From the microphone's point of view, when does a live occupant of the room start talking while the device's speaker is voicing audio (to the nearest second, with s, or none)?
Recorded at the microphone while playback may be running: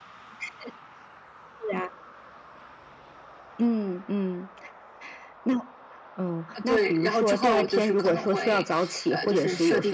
7 s